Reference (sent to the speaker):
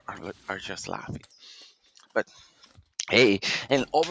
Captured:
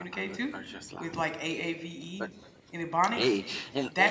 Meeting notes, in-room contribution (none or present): present